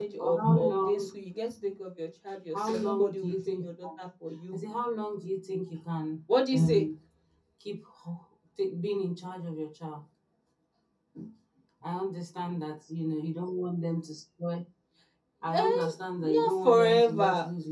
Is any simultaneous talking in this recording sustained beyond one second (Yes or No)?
Yes